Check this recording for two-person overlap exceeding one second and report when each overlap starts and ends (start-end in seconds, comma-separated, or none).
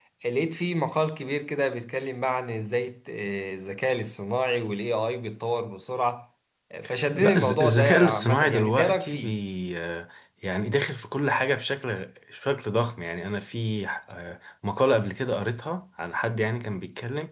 7.2-9.4